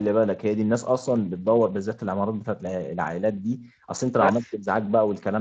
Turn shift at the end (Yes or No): No